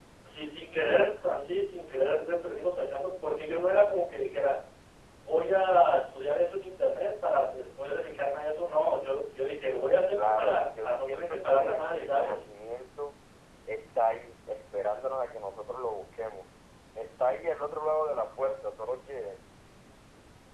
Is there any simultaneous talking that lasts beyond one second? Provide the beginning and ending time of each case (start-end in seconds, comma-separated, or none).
10.2-12.4